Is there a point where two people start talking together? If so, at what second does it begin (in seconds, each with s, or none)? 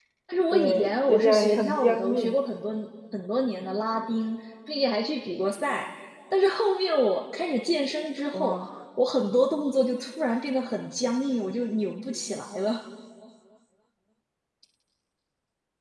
0.5 s